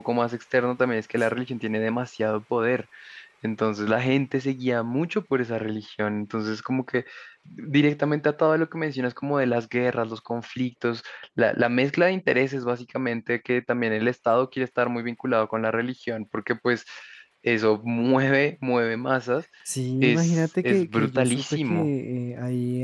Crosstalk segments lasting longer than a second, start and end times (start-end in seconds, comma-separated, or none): 20.0-21.9